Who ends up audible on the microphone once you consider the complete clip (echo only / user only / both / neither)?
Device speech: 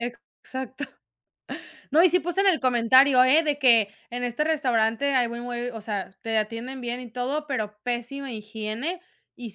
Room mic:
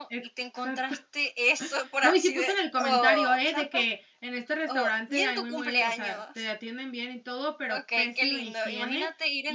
both